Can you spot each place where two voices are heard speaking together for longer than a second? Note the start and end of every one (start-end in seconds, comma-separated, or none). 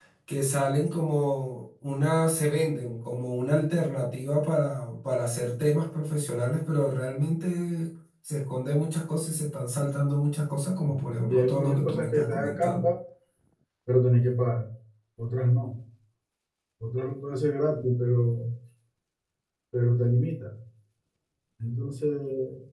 11.3-12.9